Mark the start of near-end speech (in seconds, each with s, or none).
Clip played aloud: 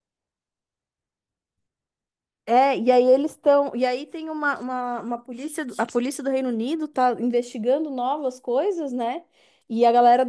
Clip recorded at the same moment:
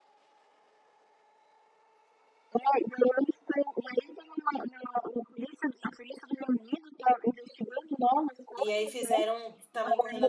8.6 s